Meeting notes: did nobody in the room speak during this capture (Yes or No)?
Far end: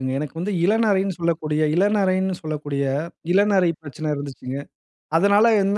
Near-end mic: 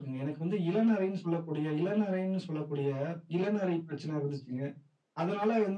Yes